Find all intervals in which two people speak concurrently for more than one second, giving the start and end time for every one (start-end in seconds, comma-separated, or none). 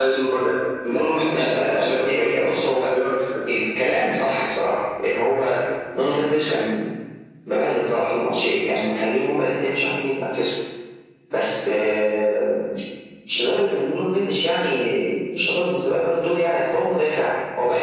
0.9-2.4